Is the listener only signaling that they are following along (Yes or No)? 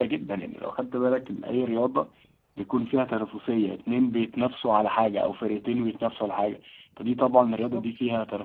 No